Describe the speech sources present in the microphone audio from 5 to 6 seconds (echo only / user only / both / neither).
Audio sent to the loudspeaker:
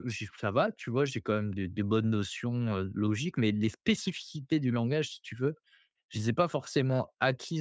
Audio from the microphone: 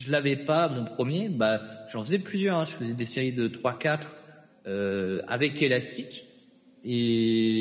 user only